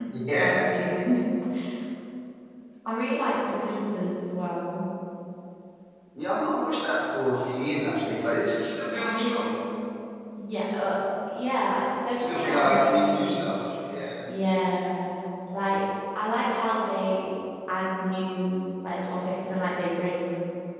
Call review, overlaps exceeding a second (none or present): present